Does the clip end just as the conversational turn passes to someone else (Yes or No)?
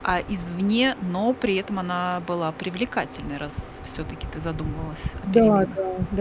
Yes